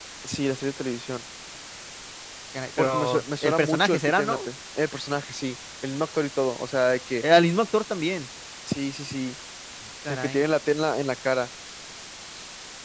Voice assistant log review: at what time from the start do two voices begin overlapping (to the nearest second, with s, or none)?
3 s